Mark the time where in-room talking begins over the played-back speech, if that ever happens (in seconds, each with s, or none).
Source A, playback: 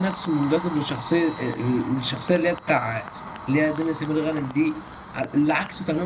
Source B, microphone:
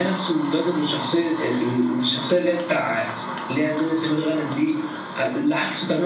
none